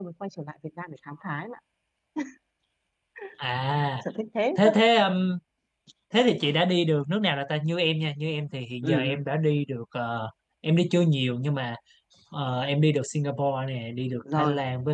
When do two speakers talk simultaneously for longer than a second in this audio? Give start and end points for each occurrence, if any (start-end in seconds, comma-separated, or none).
none